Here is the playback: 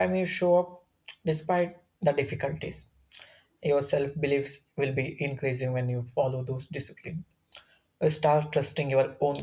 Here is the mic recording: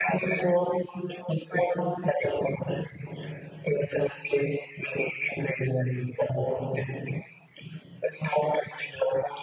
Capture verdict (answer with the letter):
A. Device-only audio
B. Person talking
A